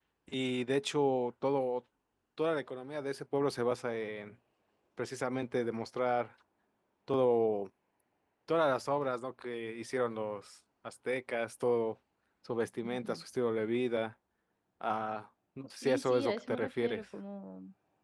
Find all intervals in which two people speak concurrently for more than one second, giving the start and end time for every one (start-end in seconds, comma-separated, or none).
15.8-17.1